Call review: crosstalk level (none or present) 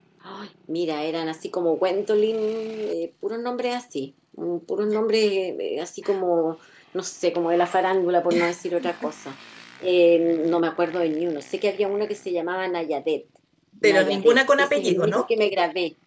present